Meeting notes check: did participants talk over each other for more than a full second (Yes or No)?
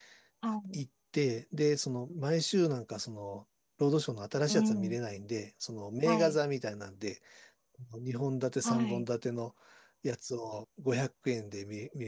No